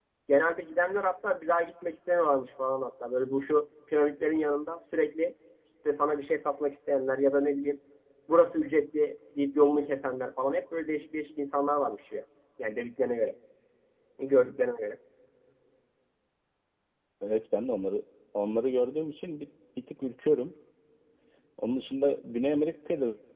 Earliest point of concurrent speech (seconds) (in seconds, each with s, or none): none